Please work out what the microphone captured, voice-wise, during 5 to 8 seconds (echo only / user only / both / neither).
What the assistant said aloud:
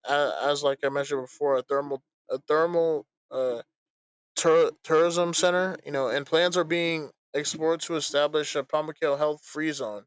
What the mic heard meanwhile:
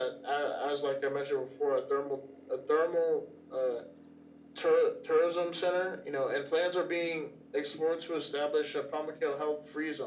echo only